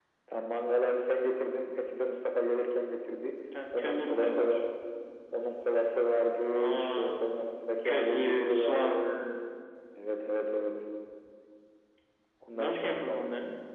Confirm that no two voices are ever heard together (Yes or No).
No